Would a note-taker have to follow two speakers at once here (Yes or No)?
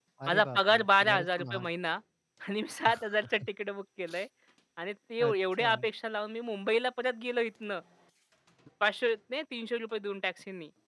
Yes